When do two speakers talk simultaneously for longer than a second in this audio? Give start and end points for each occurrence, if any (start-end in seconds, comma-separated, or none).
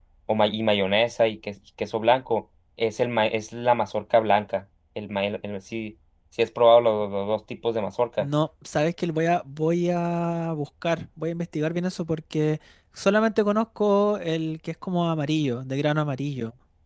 none